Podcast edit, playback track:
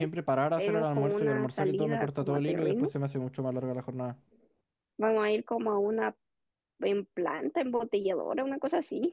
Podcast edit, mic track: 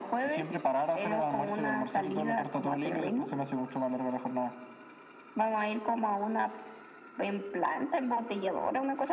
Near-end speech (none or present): none